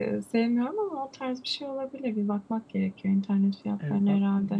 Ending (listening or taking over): taking over